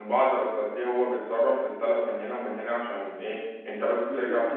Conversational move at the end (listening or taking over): taking over